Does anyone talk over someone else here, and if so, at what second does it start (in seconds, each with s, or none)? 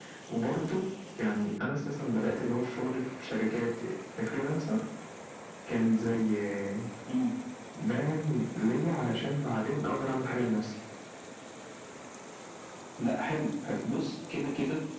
none